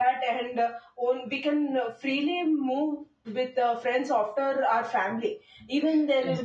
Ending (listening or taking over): listening